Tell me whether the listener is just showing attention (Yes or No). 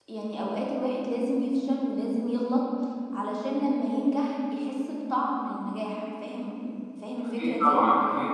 No